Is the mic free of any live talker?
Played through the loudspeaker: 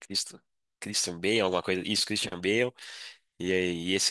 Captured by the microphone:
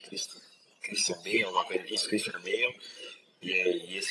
Yes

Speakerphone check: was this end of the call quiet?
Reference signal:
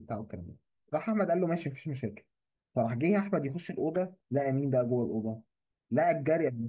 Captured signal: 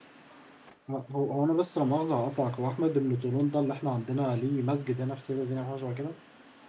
No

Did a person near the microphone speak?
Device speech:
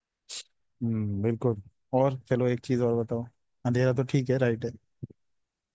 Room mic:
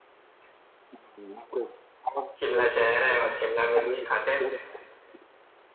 Yes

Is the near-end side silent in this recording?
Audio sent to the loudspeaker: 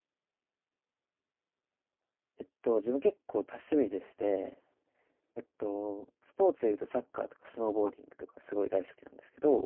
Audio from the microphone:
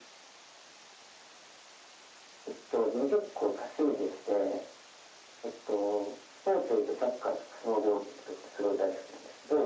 Yes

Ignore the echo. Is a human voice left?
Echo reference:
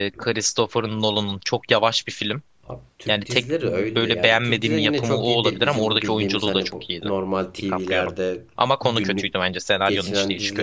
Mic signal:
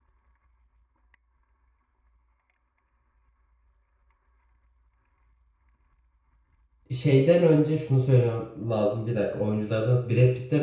Yes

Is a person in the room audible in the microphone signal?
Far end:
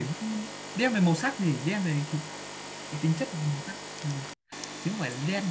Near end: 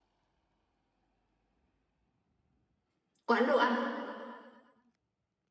Yes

